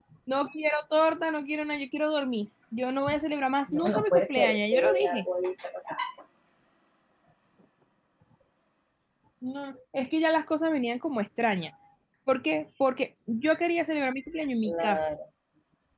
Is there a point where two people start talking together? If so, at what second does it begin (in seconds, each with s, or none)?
3.7 s